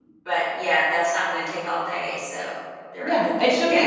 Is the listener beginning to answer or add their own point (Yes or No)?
Yes